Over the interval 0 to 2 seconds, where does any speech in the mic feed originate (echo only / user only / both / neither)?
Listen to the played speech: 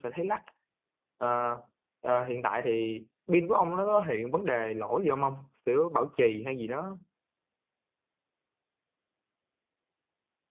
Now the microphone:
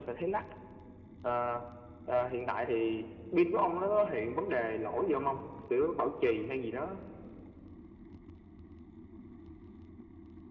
echo only